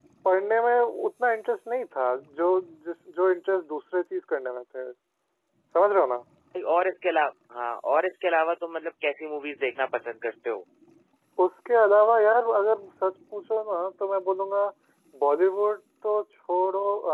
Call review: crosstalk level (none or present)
none